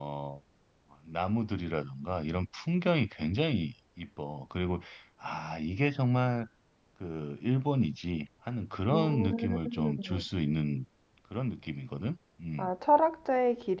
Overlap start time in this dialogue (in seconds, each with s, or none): 8.9 s